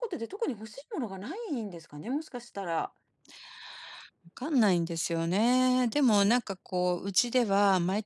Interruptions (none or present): none